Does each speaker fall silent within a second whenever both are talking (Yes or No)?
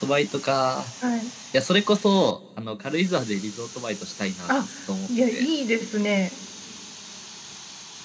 Yes